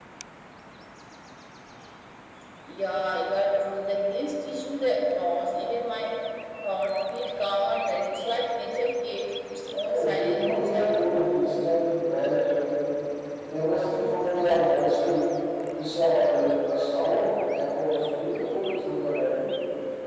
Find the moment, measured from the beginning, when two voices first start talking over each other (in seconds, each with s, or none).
9.8 s